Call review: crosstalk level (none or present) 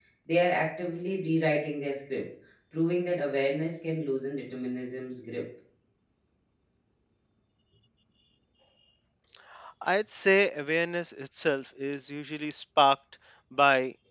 none